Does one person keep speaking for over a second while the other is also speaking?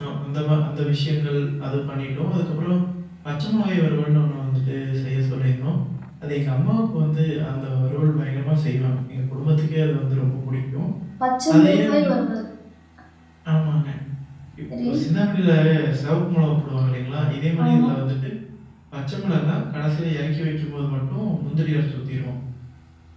No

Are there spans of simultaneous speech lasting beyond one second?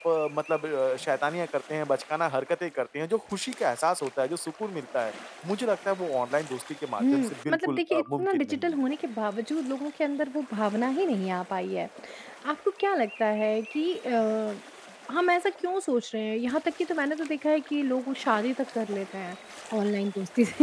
Yes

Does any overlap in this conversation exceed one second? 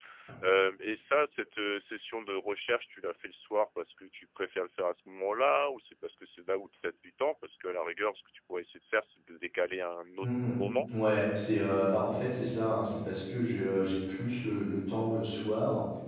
No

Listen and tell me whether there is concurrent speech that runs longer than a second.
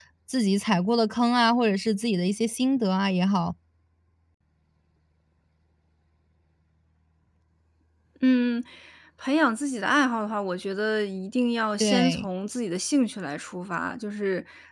No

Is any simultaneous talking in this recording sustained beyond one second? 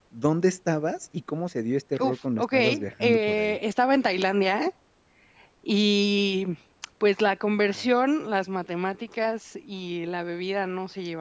Yes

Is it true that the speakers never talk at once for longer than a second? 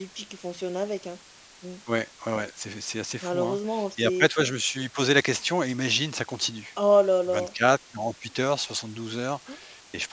Yes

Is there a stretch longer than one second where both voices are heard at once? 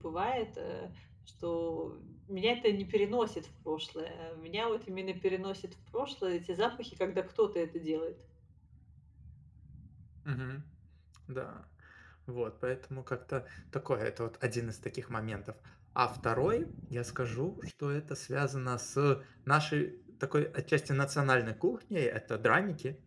No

